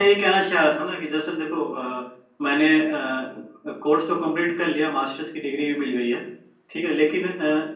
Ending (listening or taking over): listening